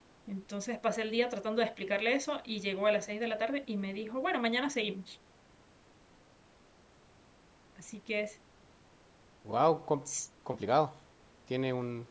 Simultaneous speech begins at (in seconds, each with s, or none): none